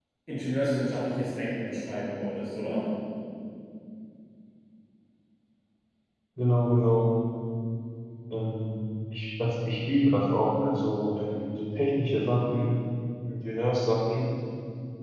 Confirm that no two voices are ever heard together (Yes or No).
Yes